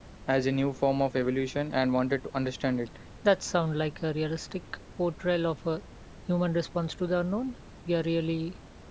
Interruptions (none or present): none